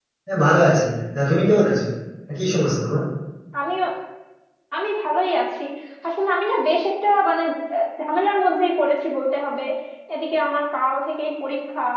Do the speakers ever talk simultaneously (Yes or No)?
No